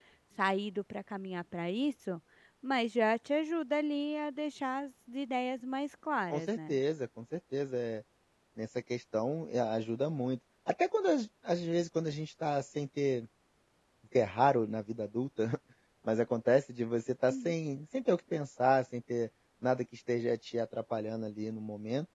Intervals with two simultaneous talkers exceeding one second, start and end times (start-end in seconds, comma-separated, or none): none